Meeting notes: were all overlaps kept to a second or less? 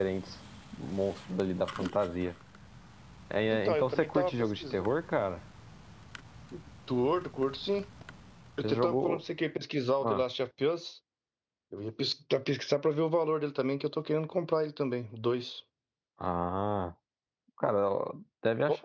No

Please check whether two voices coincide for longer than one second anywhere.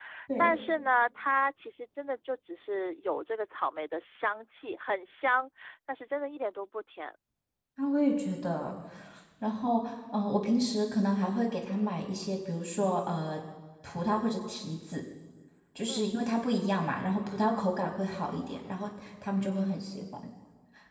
No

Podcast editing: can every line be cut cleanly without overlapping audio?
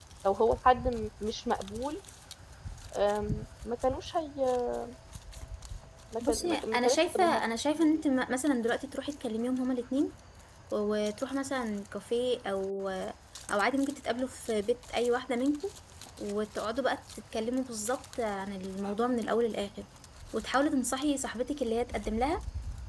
No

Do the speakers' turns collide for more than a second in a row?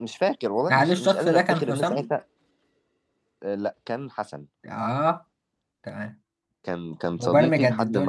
Yes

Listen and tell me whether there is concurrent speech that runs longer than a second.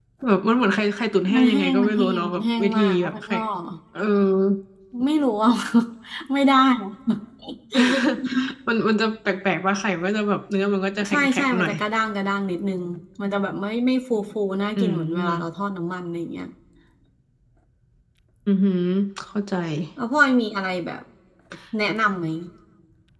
Yes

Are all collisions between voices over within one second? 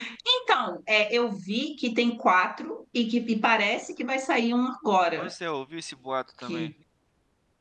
Yes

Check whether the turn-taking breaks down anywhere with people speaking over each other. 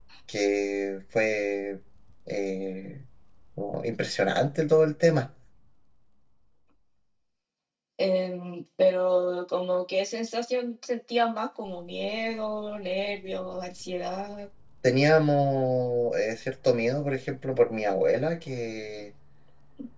No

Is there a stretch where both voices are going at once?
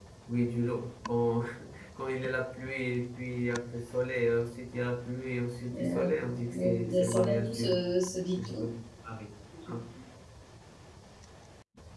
Yes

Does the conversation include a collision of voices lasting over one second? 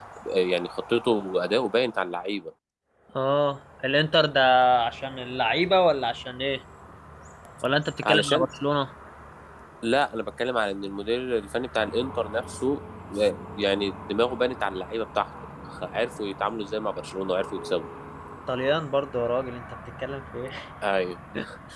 No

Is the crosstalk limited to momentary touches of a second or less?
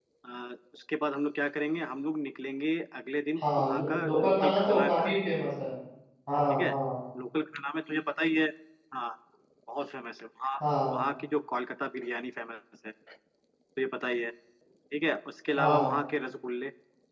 No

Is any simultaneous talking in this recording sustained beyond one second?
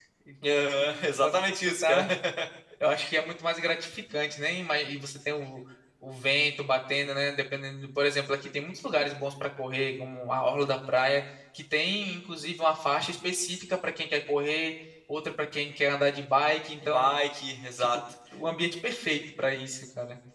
Yes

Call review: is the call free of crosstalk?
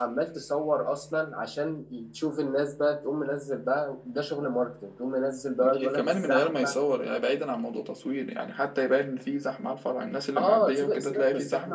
No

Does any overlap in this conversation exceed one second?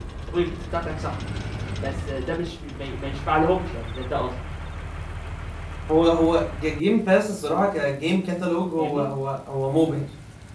No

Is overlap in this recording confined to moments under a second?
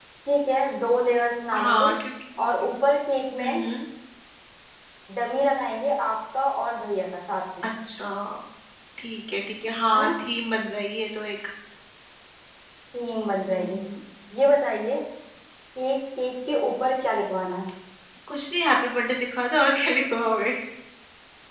Yes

